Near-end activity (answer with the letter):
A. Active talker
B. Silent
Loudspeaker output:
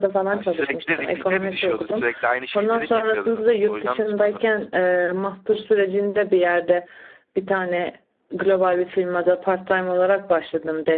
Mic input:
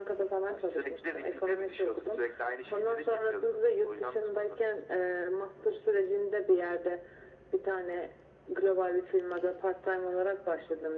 B